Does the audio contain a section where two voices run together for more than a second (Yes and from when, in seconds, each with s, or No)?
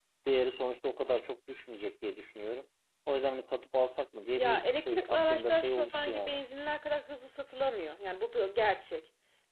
Yes, from 4.3 s